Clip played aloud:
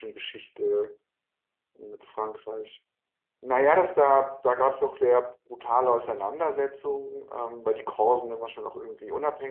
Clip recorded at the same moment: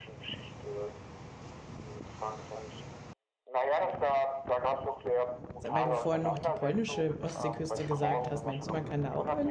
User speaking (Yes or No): Yes